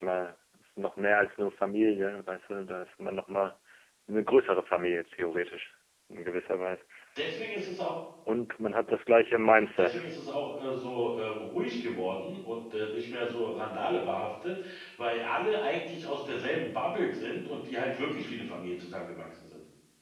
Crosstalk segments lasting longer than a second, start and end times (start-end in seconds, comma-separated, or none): none